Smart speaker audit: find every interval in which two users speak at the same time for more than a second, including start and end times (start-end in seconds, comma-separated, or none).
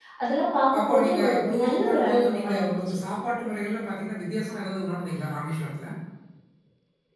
0.8-3.0